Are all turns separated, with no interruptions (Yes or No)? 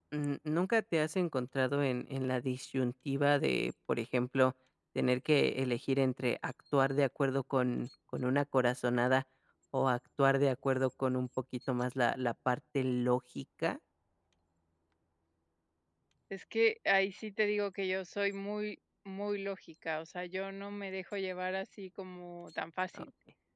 Yes